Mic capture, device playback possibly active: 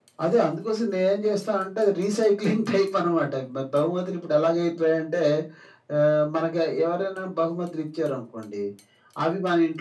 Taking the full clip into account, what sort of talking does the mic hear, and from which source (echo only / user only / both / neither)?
echo only